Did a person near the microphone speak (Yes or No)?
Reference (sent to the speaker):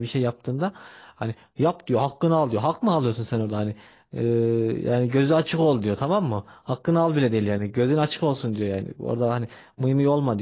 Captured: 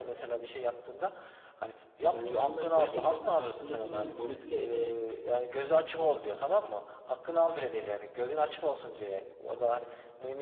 Yes